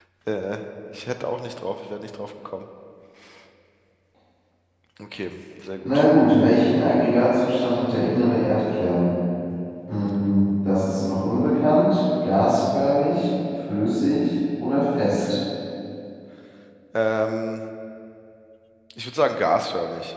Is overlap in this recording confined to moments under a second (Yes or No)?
Yes